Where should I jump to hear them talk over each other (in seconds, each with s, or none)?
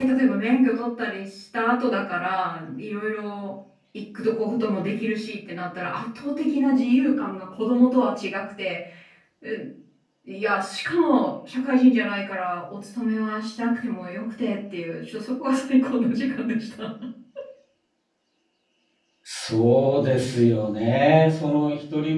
none